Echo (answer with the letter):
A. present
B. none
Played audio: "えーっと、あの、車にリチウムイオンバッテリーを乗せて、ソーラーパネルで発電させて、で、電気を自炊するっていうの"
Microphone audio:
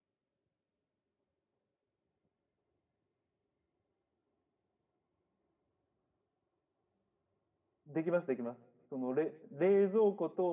B